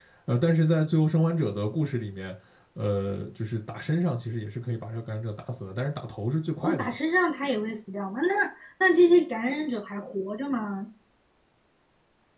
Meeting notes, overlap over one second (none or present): none